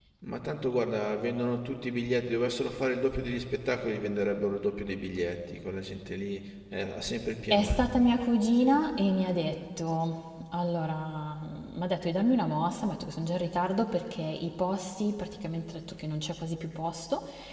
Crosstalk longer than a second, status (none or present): none